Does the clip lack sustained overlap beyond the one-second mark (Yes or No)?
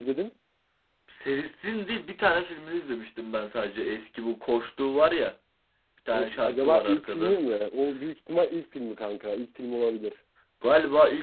No